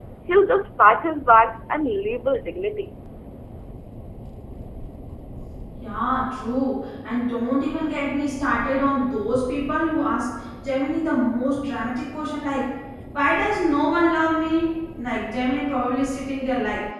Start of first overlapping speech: none

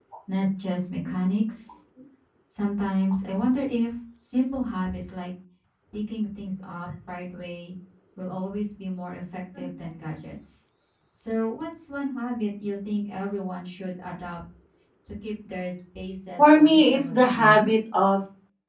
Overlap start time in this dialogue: 16.4 s

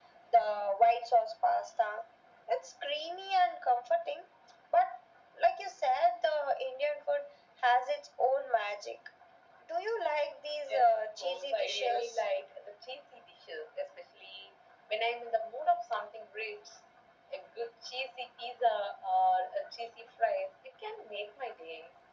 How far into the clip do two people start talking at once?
10.7 s

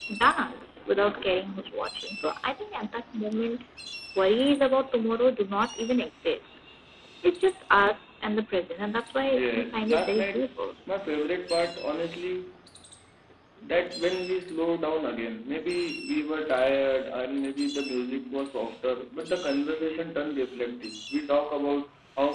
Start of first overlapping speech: 9.3 s

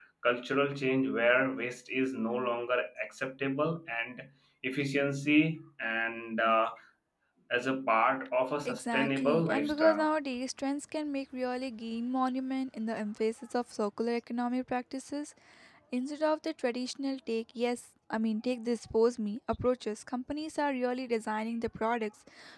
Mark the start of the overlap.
8.7 s

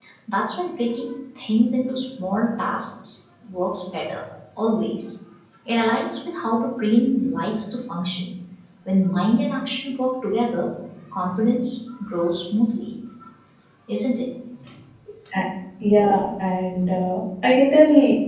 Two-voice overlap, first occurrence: none

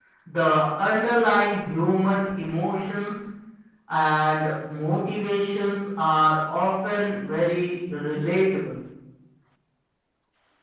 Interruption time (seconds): none

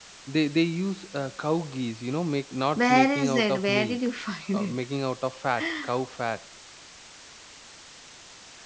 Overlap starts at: 2.8 s

